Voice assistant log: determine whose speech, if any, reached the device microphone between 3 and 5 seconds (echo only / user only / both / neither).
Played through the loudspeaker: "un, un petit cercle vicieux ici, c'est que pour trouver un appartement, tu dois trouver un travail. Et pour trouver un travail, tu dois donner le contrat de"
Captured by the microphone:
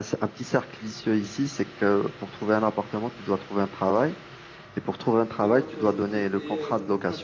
echo only